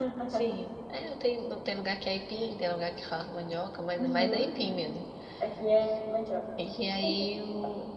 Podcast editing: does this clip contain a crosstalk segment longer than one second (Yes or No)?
No